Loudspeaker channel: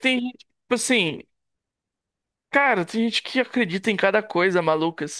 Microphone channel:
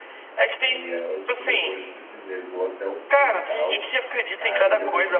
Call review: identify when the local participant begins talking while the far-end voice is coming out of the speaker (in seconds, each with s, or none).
0.6 s